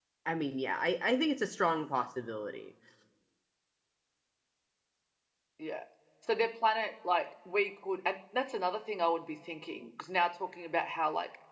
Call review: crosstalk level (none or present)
none